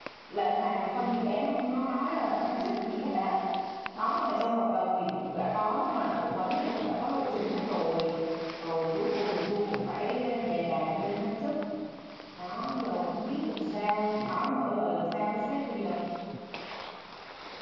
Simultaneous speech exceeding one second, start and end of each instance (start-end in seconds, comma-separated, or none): none